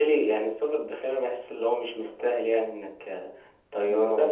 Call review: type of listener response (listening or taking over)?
taking over